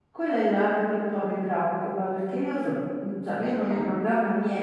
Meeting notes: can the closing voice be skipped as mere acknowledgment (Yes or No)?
Yes